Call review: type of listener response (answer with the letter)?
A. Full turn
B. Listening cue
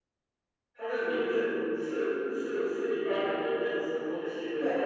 A